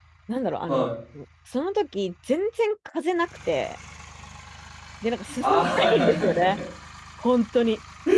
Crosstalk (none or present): present